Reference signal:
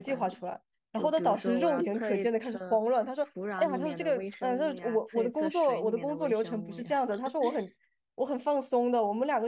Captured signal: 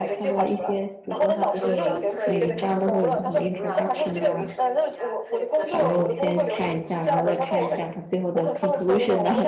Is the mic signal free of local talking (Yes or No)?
No